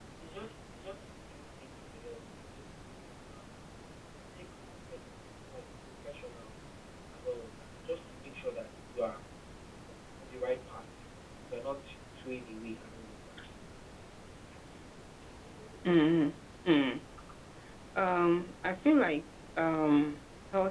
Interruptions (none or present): none